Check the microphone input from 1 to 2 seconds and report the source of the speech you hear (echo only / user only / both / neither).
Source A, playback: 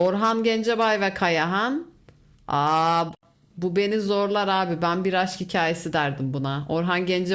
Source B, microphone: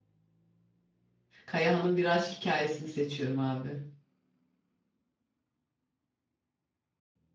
user only